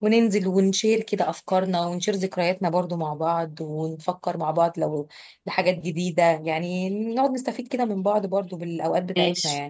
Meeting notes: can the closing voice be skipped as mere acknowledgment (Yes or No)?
No